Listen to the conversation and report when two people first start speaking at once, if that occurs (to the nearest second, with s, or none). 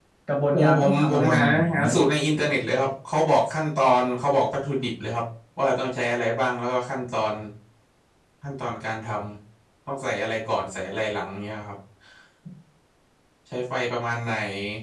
1 s